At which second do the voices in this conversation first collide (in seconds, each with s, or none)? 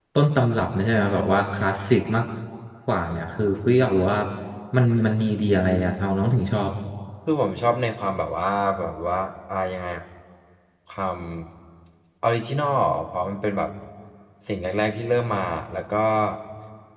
none